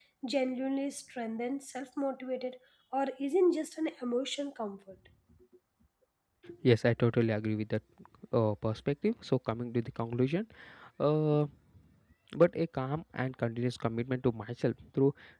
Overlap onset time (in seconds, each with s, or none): none